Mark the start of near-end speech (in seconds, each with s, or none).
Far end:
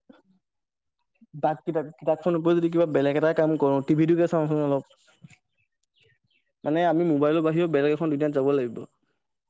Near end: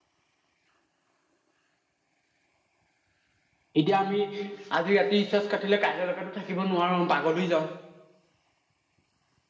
3.8 s